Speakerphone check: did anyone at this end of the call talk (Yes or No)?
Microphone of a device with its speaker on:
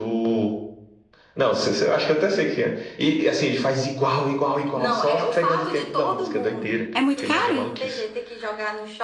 Yes